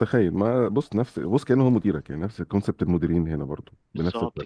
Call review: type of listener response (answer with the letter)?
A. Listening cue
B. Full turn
B